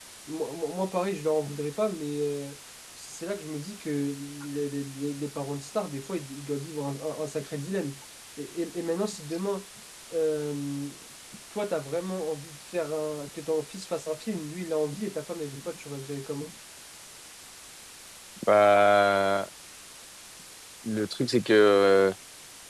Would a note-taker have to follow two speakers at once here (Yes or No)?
No